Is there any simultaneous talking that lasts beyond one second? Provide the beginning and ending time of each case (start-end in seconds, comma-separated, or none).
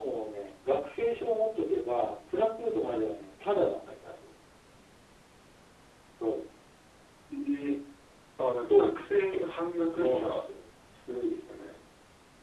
none